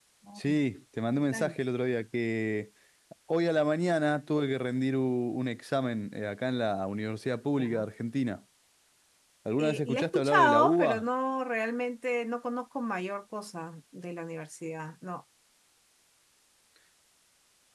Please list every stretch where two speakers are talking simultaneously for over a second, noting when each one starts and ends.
9.6-11.0

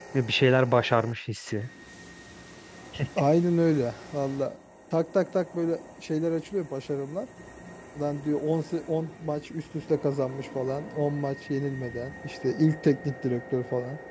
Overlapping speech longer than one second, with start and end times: none

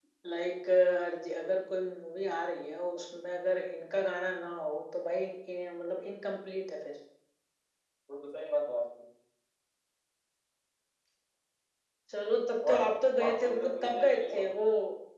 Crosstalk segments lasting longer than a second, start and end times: 13.2-14.5

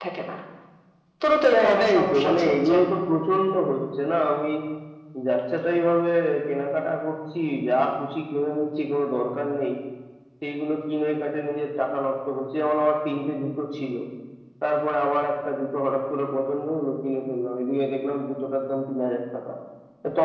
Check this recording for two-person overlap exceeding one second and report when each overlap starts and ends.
1.5-2.8

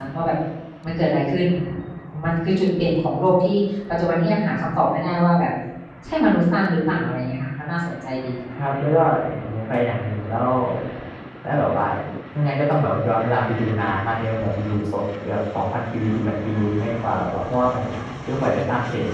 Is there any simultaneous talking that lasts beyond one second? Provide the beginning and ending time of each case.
none

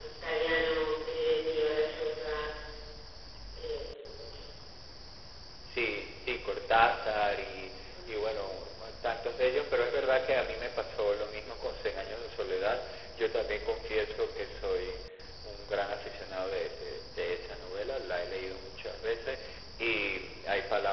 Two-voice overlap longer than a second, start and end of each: none

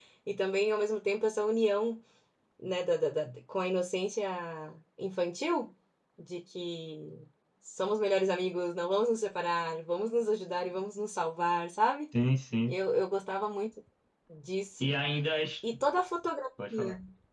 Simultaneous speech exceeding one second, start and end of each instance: none

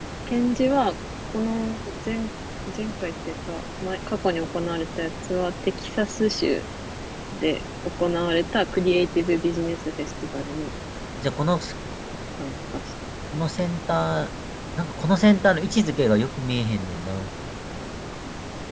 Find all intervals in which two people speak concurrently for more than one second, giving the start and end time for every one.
none

